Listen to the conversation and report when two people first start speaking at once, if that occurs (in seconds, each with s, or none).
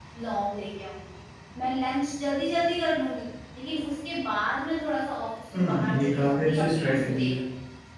5.5 s